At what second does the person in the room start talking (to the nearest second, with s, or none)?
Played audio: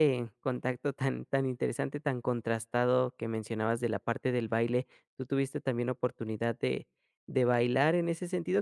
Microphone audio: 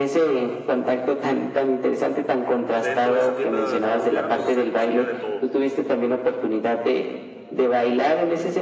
2 s